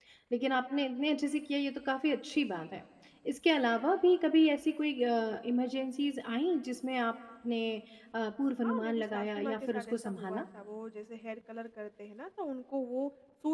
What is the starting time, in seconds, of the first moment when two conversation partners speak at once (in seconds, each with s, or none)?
8.6 s